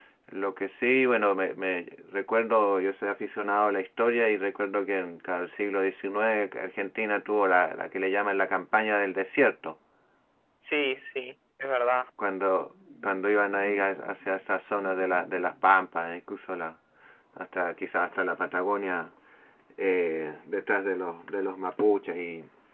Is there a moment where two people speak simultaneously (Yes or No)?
No